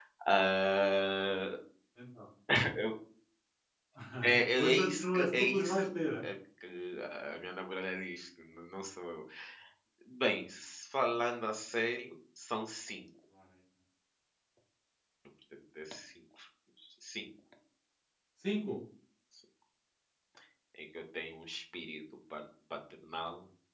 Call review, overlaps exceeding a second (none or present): present